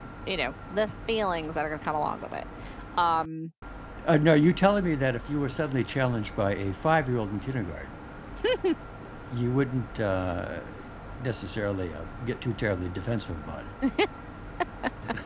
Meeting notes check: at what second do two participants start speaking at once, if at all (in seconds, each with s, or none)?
none